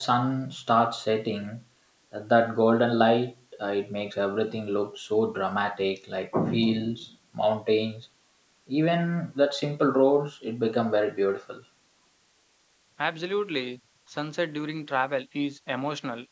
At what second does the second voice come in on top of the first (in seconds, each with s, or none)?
none